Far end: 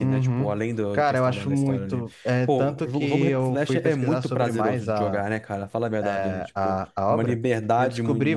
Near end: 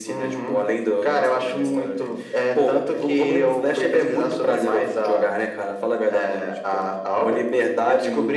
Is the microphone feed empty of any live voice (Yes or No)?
Yes